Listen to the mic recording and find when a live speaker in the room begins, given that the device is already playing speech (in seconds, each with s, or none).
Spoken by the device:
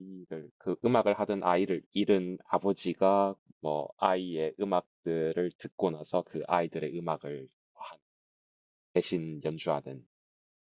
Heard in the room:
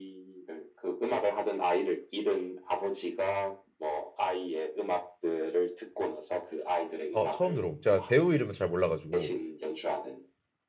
7.1 s